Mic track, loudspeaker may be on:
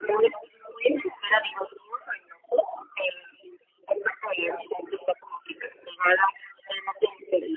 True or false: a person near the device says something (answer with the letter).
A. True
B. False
B